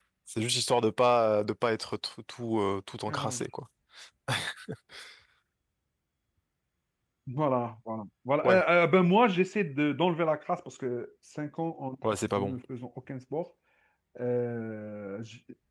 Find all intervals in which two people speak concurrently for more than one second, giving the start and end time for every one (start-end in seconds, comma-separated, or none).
none